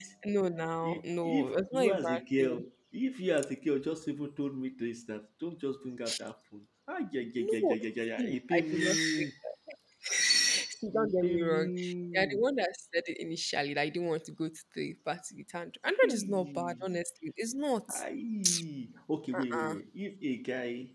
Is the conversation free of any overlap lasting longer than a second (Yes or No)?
No